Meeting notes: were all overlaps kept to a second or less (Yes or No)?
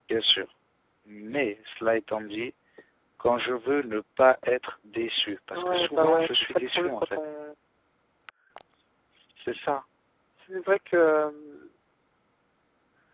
No